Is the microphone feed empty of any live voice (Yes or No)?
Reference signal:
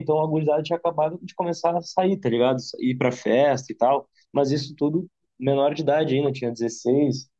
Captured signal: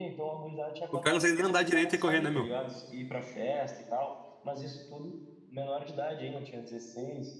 No